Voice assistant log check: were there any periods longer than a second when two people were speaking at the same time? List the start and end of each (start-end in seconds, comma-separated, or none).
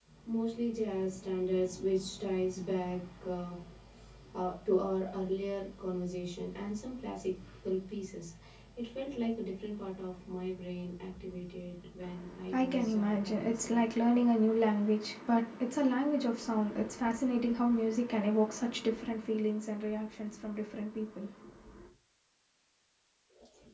12.5-13.8